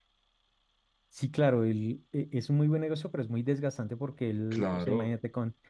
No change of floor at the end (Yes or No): Yes